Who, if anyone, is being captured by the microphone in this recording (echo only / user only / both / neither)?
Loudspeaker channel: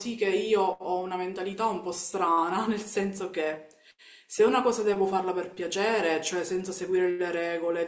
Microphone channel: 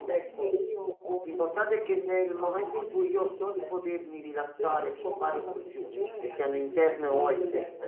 both